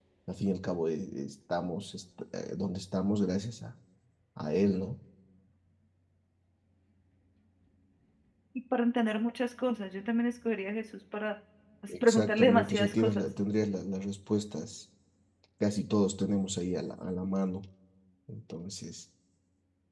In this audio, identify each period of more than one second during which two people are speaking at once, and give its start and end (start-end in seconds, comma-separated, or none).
11.9-13.3